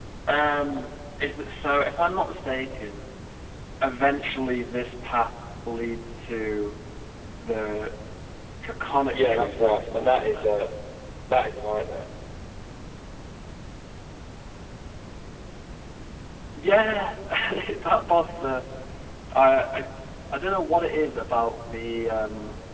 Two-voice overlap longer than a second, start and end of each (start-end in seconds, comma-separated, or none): 9.1-10.5